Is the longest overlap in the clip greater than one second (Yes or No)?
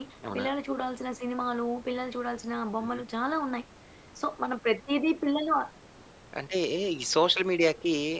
No